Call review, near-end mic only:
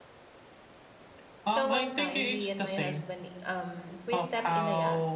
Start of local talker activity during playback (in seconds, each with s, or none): 1.4 s